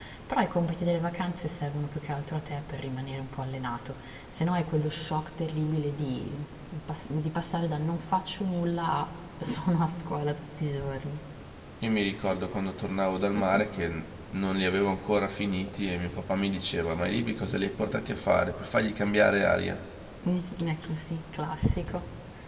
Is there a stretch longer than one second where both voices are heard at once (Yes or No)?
No